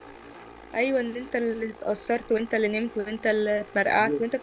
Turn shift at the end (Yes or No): Yes